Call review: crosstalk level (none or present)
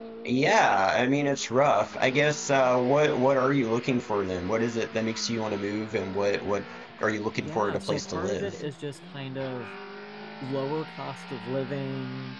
present